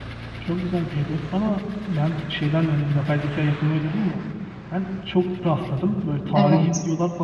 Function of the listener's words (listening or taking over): listening